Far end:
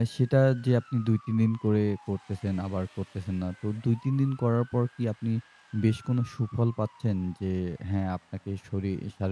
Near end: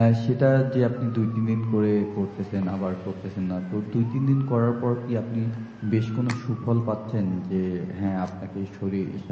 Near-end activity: none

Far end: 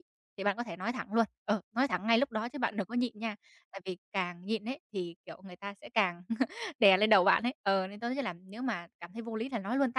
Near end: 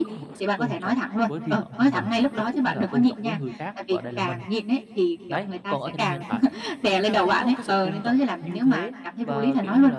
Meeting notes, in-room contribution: present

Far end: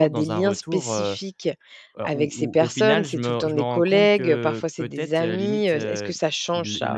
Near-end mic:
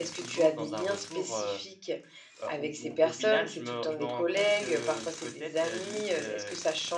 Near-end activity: none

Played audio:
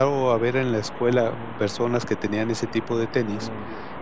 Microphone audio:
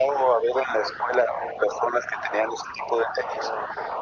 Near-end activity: none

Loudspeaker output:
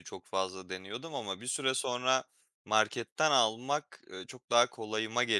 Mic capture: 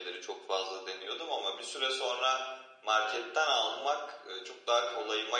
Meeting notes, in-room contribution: none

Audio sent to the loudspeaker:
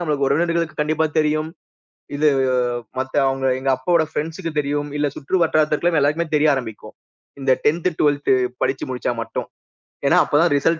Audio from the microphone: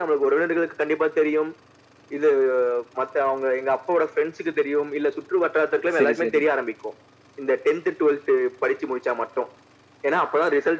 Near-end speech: present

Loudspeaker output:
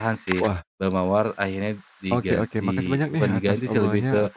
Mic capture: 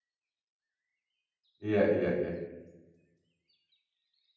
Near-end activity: present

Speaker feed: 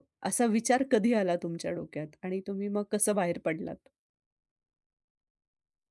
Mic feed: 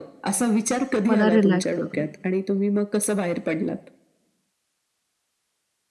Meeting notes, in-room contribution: present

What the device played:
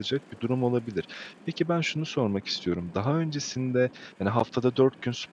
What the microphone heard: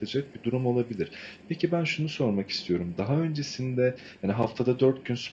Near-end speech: none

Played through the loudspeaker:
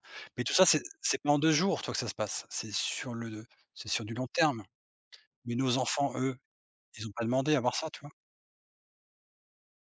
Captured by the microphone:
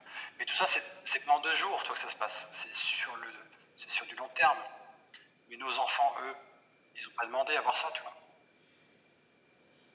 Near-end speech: none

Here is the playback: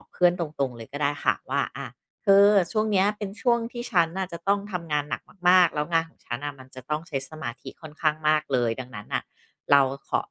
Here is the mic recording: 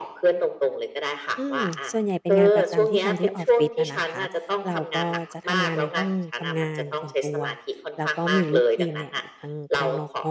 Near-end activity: present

